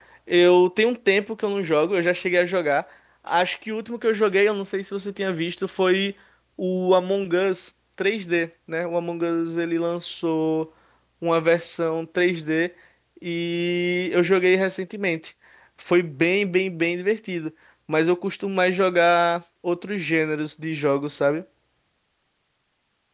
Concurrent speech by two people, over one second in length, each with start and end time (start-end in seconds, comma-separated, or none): none